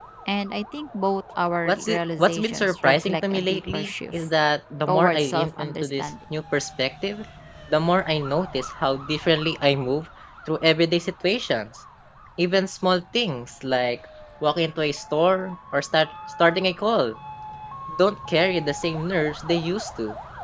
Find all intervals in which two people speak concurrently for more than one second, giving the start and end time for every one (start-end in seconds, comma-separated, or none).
1.6-4.3, 4.9-6.1